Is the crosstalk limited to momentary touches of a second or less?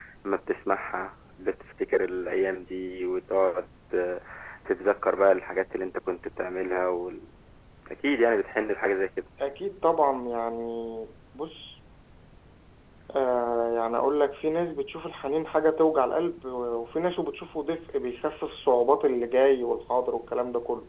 Yes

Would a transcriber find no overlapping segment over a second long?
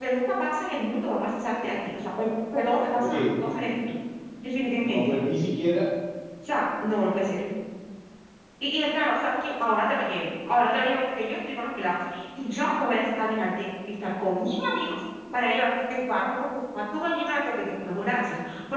Yes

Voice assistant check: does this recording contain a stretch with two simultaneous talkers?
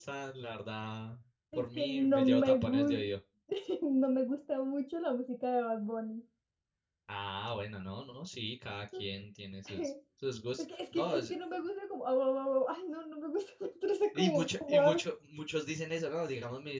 Yes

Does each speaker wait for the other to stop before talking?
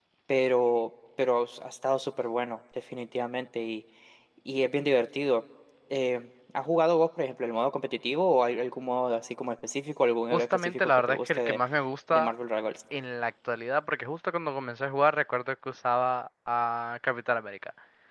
No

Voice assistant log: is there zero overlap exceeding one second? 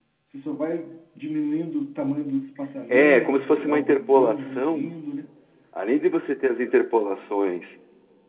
No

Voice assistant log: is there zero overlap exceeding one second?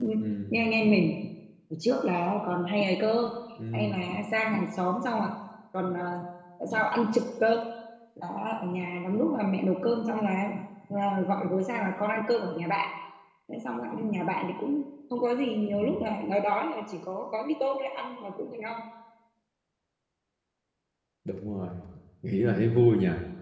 Yes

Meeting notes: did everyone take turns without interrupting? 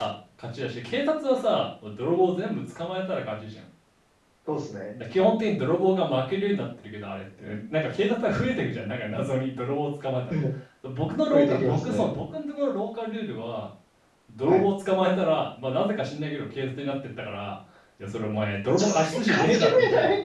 No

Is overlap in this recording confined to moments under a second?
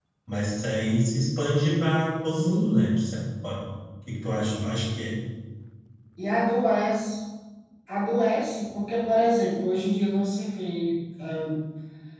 Yes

